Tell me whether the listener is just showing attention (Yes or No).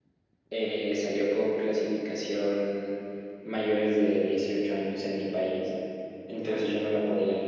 Yes